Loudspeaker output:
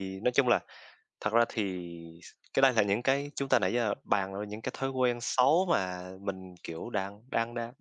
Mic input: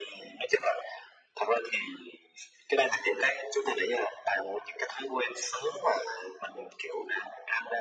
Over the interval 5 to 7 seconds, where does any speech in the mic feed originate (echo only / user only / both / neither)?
echo only